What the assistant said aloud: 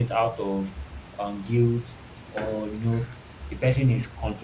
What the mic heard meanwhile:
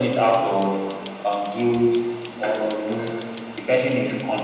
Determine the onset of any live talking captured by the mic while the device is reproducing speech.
none

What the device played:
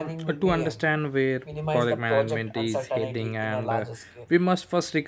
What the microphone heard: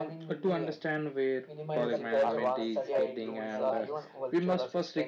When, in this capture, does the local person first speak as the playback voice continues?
1.7 s

